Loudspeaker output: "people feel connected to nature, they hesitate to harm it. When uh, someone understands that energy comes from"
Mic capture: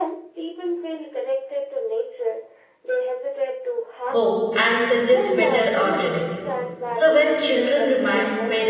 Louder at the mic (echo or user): user